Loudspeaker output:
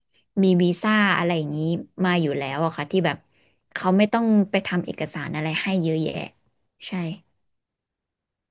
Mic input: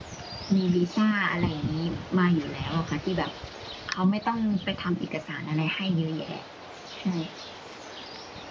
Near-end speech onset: none

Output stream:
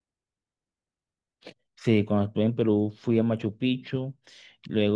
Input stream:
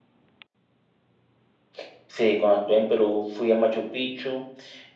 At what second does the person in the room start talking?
none

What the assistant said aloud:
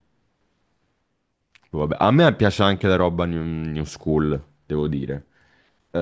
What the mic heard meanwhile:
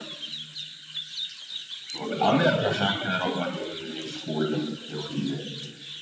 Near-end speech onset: none

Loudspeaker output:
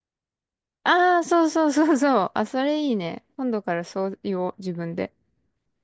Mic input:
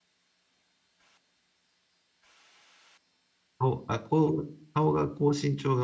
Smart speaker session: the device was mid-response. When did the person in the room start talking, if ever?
3.6 s

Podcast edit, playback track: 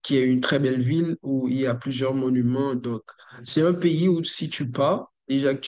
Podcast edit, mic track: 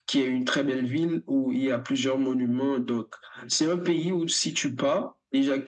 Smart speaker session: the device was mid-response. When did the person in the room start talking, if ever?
none

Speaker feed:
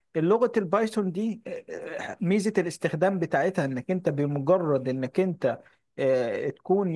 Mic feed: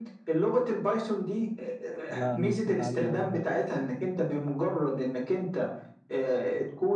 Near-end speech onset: 2.1 s

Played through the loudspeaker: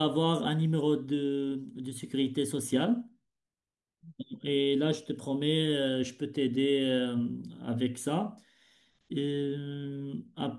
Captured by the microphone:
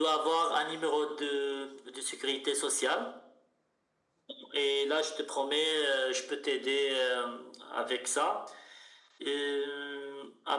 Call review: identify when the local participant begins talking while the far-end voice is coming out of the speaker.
none

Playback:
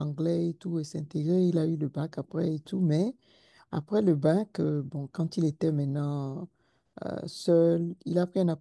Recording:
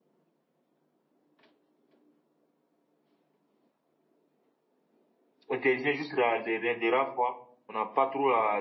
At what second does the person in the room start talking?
5.5 s

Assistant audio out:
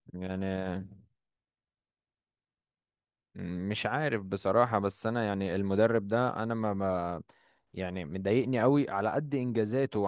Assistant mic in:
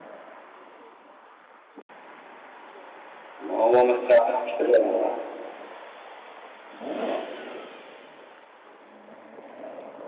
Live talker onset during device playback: 3.4 s

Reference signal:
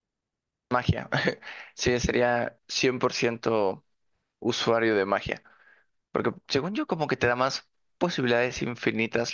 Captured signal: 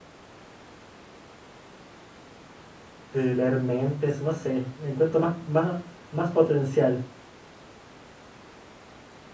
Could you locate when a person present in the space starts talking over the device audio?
3.1 s

